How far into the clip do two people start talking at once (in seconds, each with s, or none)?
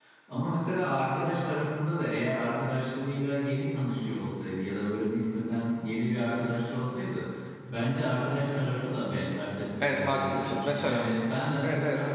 9.8 s